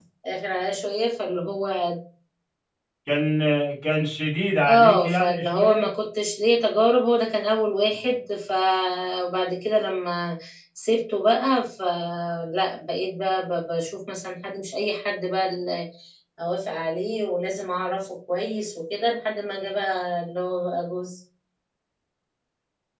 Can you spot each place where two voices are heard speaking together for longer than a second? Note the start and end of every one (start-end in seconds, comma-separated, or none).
4.7-5.9